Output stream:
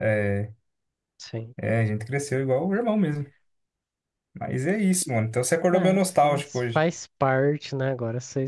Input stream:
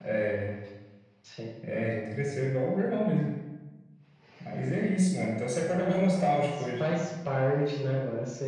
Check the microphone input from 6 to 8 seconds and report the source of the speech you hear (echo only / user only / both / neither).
echo only